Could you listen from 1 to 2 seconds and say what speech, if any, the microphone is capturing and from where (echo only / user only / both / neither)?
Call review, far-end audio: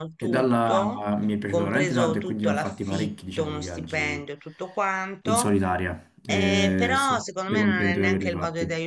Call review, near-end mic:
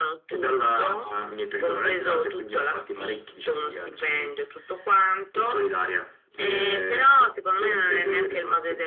echo only